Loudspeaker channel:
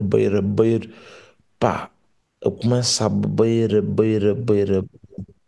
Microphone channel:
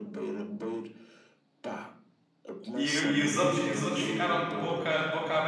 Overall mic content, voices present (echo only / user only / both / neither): both